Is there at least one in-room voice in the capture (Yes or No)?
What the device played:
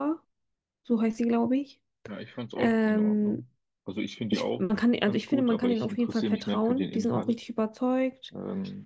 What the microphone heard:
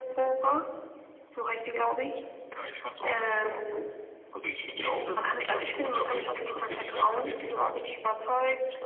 No